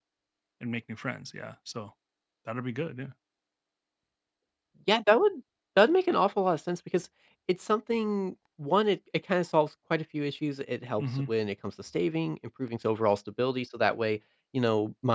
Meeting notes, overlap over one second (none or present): none